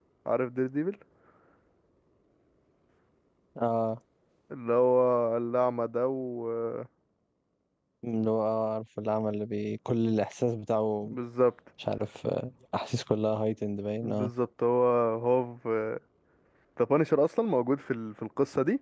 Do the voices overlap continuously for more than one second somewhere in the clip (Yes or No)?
No